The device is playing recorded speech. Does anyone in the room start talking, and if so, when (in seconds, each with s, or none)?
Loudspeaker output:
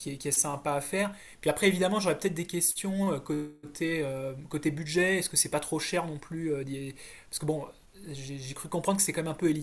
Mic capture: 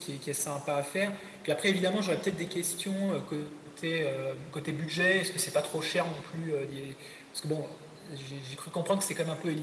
none